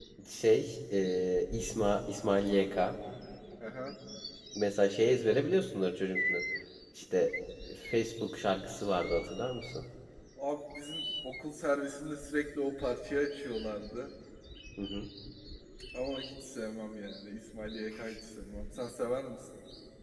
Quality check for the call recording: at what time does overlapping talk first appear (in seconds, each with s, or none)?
none